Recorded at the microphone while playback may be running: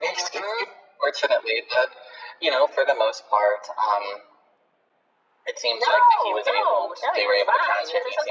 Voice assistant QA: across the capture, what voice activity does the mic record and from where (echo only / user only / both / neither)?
echo only